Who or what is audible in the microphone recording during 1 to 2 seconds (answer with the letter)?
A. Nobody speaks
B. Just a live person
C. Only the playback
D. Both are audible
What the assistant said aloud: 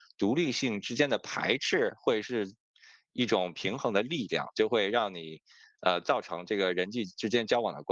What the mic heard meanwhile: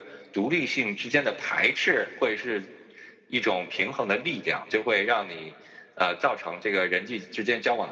C